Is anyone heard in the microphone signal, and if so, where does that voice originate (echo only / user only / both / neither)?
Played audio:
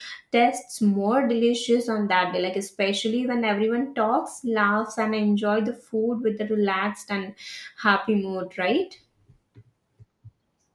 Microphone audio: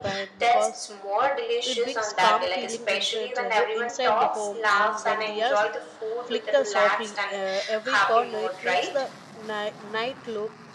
both